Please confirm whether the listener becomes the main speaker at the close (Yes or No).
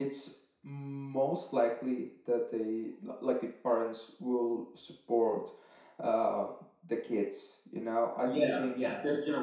Yes